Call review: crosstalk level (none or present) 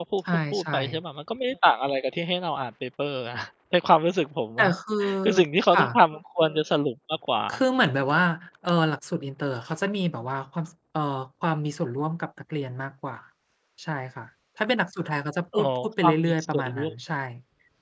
present